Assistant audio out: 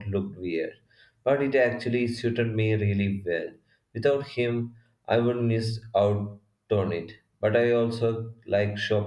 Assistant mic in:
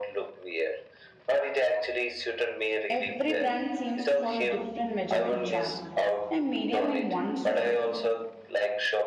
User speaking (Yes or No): Yes